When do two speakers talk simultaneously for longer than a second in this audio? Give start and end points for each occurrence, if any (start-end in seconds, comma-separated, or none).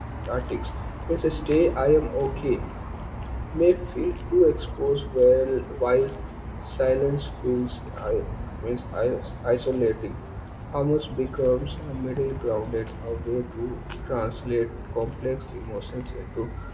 none